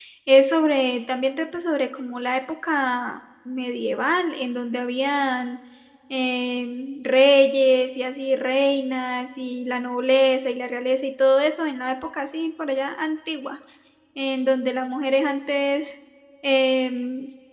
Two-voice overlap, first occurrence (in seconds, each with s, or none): none